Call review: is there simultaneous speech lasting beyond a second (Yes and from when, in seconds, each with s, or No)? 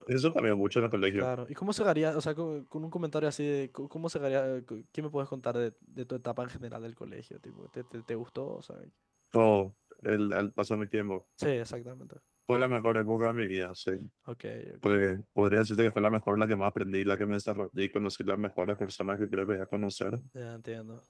No